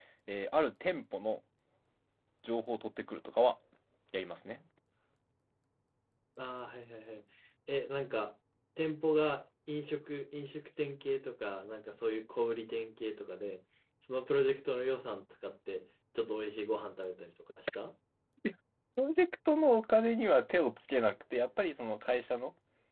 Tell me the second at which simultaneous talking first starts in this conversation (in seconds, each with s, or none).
none